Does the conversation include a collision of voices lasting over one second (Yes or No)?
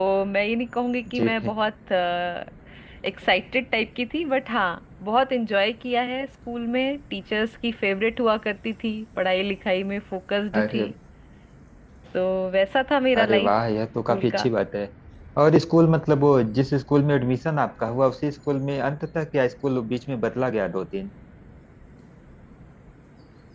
No